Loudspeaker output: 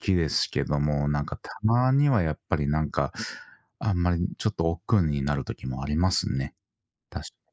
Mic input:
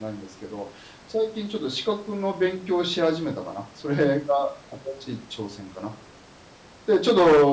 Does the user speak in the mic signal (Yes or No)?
Yes